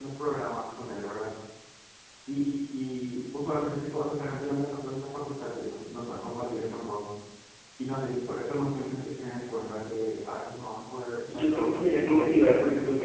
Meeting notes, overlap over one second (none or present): present